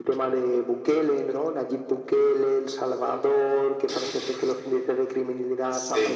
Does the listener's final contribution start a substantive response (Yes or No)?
No